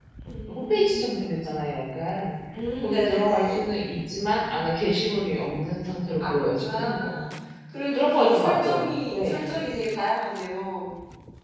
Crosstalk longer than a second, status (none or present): present